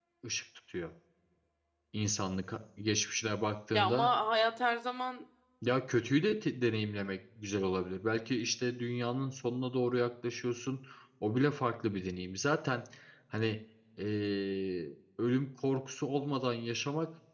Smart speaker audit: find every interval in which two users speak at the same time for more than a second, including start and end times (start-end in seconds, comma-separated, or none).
none